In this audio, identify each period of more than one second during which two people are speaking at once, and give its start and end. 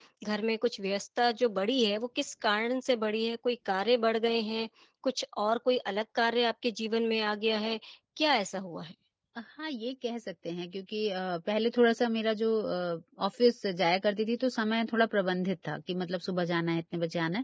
none

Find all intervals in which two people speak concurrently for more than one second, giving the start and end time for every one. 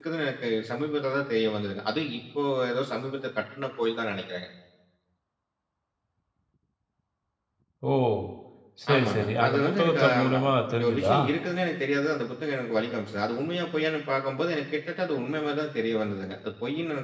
8.9-11.2

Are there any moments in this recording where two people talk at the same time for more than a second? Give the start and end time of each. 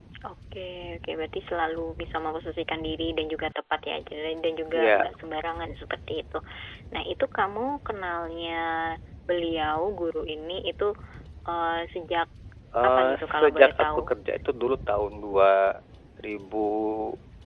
12.8-14.1

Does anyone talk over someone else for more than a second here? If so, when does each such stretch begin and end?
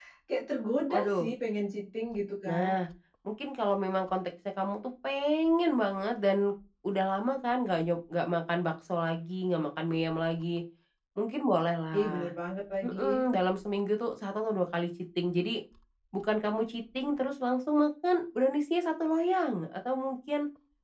none

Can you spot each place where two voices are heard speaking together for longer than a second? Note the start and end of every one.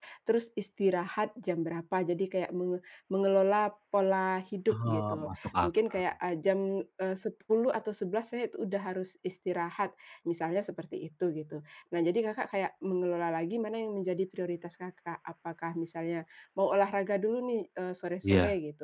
4.7-6.0

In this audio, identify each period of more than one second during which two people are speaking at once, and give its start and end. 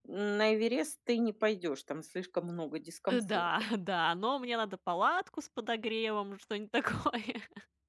none

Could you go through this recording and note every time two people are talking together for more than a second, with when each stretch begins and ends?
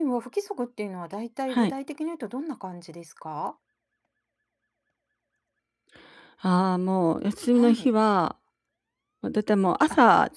none

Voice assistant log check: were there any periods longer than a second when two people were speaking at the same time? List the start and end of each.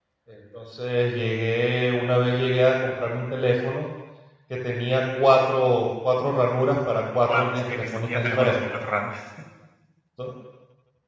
7.3-8.6

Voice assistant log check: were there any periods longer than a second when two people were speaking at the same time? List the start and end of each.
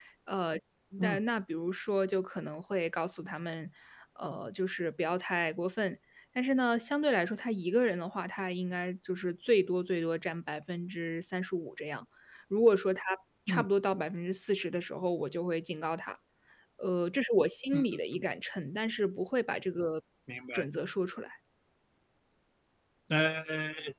none

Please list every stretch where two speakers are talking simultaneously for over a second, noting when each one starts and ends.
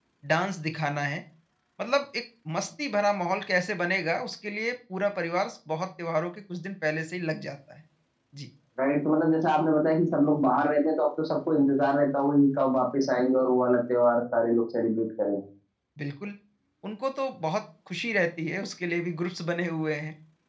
none

